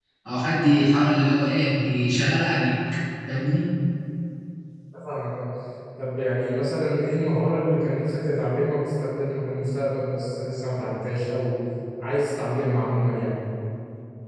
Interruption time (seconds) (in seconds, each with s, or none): none